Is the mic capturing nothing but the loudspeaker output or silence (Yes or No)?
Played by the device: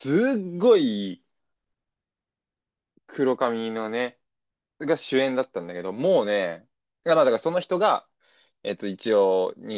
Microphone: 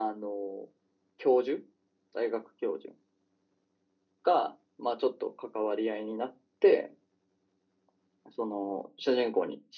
No